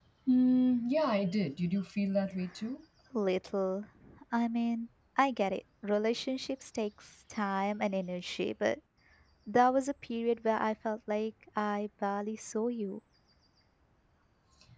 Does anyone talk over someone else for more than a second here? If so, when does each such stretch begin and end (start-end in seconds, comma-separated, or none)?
none